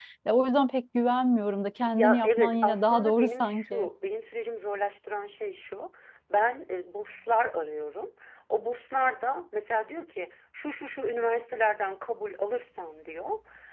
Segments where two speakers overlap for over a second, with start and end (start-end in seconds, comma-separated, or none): 1.9-3.9